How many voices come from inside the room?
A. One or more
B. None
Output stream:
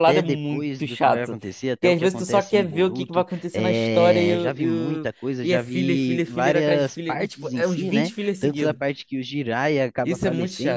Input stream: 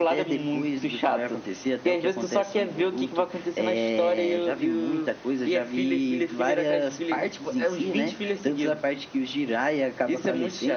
B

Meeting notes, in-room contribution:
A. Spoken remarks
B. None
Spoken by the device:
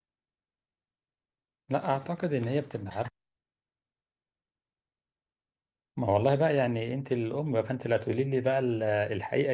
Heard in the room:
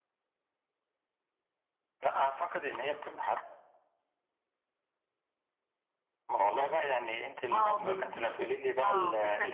A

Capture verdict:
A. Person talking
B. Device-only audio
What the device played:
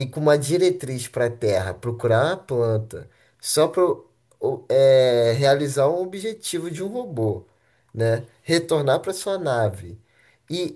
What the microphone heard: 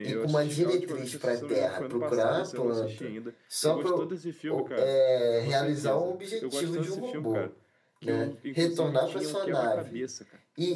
A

